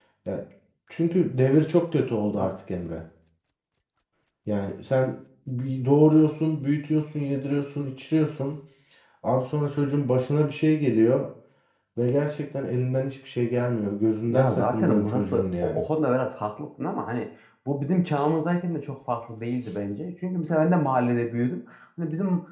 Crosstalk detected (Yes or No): Yes